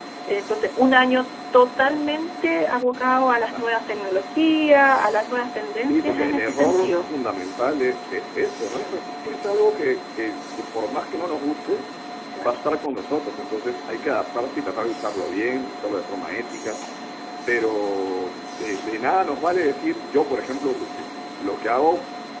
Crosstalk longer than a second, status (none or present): present